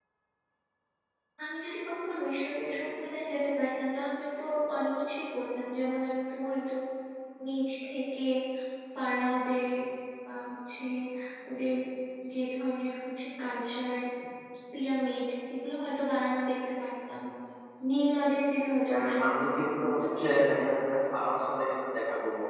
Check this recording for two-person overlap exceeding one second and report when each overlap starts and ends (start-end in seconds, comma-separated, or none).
18.9-20.6